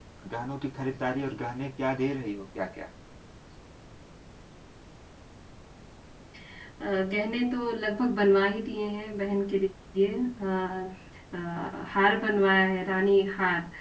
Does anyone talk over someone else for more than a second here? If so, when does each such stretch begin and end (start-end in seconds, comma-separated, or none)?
none